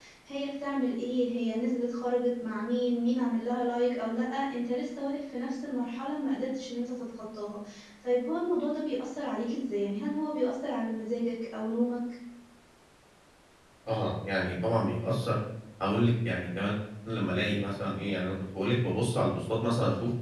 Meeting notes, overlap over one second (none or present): none